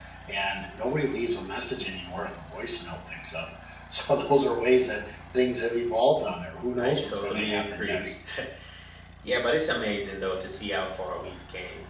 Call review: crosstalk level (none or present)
present